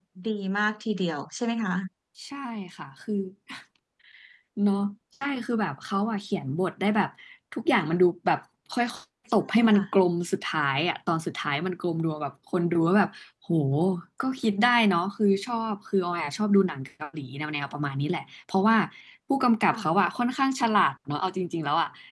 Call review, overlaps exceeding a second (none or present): none